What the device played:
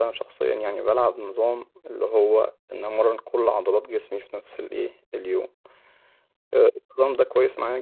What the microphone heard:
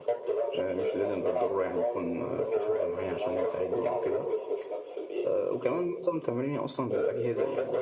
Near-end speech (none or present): present